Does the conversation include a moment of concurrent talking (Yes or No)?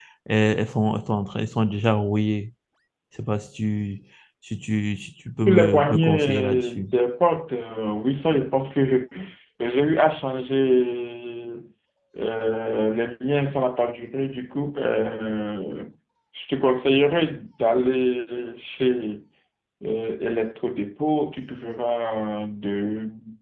Yes